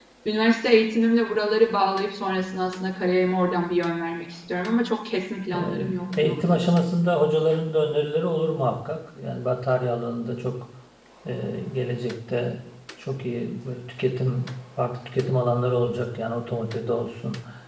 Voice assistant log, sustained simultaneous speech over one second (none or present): present